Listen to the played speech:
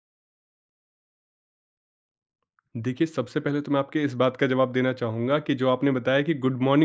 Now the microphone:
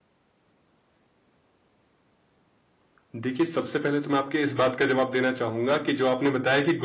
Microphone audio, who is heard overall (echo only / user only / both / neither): echo only